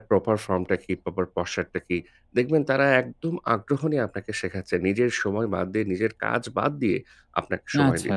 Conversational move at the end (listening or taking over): listening